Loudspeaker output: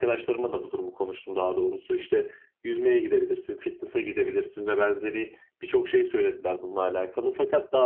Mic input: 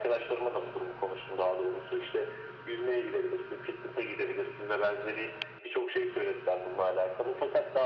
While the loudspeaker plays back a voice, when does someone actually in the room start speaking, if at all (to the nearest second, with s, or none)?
none